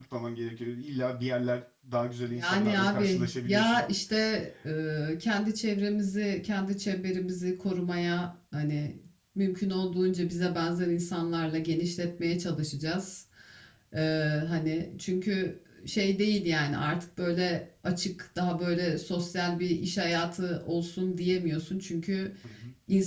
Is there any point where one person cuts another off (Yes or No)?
Yes